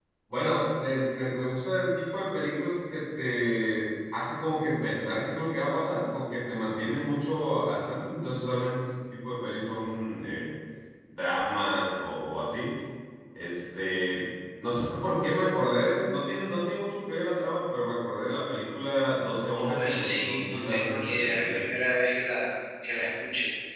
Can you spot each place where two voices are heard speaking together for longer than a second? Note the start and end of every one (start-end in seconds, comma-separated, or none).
19.6-21.6